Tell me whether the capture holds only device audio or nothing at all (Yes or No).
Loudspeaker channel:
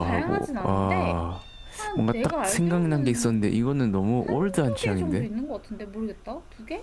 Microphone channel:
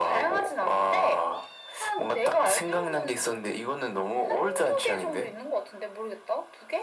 Yes